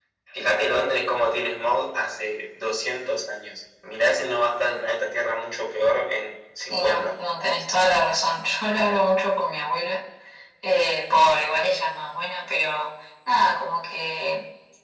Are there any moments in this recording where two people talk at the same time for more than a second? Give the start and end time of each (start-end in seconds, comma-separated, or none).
none